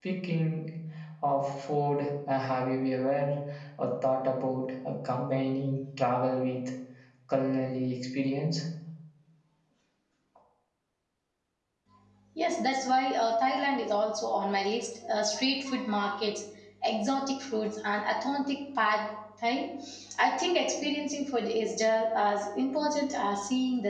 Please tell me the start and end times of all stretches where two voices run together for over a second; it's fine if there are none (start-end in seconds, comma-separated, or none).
none